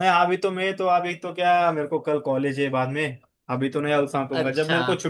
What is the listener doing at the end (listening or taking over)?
listening